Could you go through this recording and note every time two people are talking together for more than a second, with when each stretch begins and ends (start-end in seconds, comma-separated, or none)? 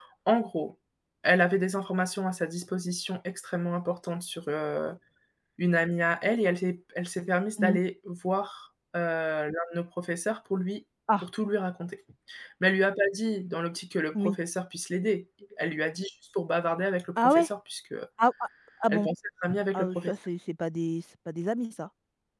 none